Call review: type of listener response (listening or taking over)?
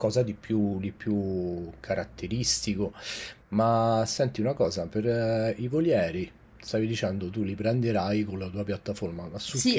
taking over